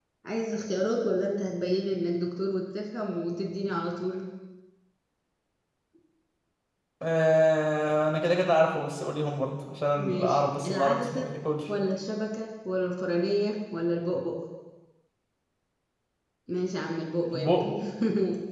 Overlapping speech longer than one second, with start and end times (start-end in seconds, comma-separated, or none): 10.0-11.3